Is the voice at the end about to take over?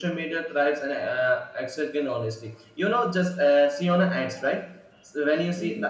No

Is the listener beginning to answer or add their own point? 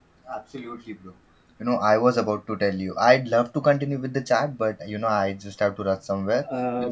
Yes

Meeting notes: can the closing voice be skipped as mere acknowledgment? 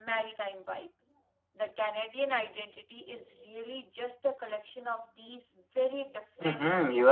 No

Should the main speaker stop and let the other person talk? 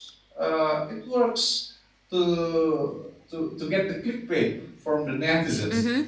Yes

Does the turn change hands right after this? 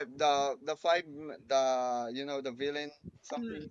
Yes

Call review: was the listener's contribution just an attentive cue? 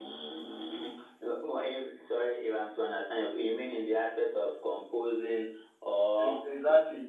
No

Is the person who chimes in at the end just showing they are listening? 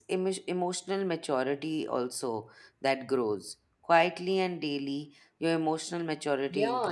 No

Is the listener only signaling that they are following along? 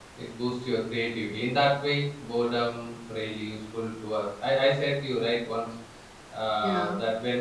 Yes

